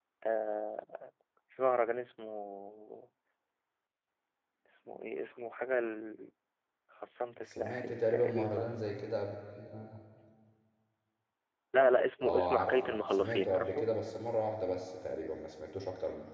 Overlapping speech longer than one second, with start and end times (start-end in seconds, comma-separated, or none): 7.4-8.9, 12.2-13.9